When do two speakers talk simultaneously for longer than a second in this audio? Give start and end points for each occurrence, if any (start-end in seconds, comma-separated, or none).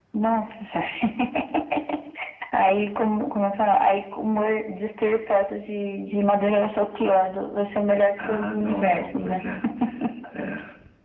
8.2-9.4